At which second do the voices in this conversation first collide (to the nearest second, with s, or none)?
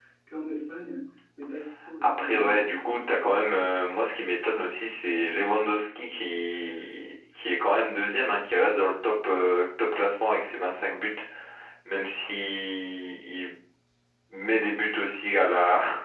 2 s